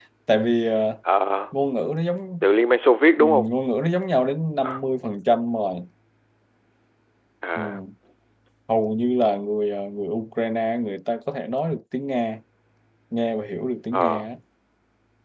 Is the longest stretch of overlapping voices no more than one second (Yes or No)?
Yes